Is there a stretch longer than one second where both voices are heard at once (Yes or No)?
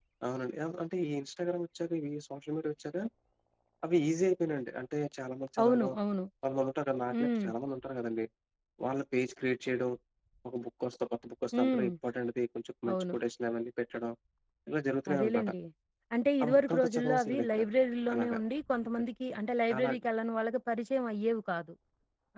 Yes